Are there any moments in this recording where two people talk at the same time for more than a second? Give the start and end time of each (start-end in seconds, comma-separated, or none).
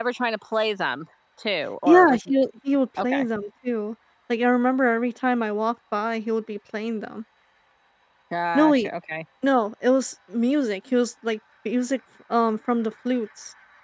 none